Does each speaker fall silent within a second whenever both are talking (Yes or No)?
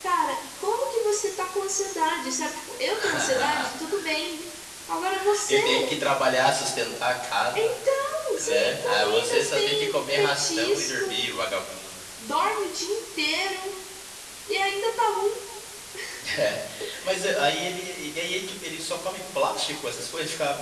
No